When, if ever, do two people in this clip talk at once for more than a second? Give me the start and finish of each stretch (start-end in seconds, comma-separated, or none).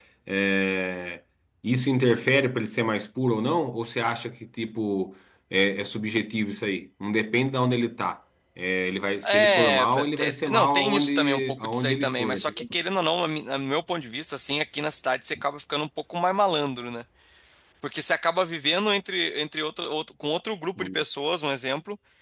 9.3-12.8